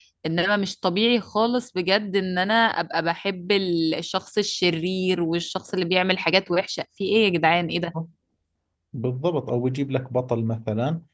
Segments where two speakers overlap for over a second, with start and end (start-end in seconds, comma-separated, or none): none